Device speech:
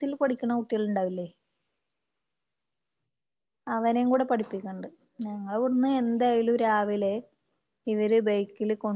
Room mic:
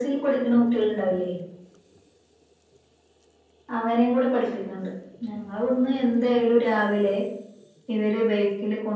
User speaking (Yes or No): No